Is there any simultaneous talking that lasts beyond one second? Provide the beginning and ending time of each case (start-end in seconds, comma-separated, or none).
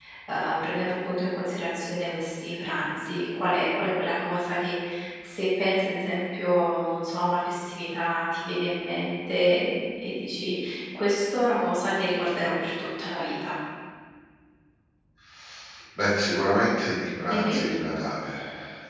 none